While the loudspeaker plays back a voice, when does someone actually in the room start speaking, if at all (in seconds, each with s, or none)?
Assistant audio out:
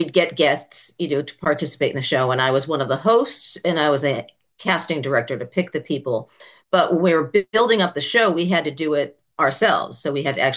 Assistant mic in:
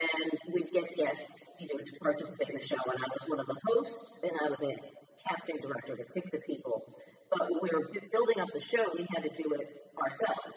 none